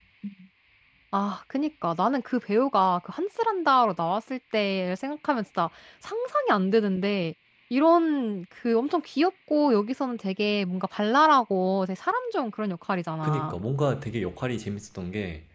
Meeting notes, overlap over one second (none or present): none